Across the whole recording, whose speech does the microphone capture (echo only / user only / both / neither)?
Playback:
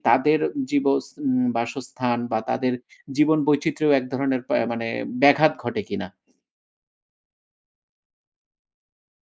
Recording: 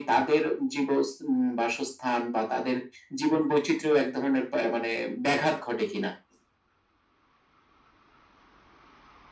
echo only